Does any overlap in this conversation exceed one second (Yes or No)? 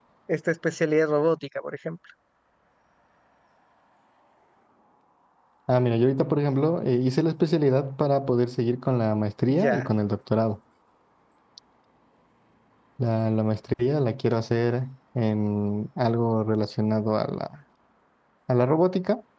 No